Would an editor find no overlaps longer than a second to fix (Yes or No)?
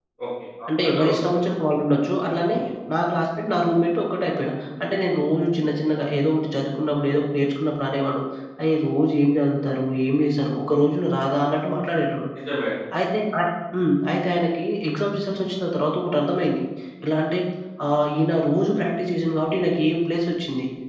Yes